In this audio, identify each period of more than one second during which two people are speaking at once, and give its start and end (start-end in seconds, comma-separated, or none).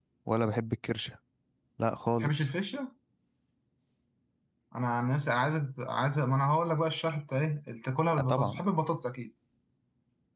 none